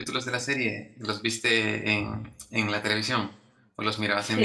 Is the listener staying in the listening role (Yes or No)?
No